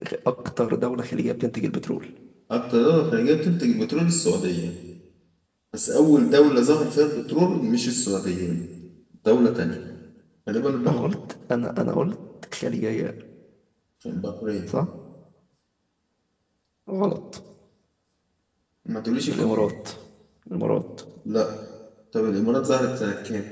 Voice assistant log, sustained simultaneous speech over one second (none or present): none